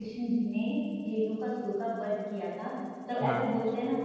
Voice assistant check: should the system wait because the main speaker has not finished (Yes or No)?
Yes